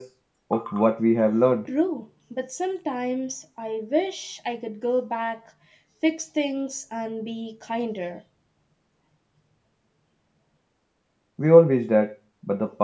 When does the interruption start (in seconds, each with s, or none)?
none